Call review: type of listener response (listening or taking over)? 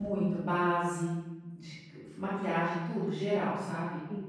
taking over